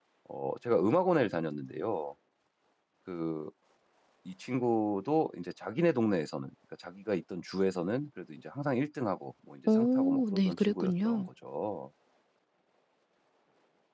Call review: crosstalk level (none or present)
present